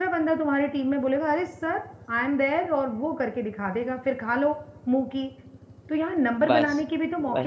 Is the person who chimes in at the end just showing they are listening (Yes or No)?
Yes